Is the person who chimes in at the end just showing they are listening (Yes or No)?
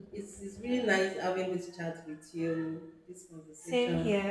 No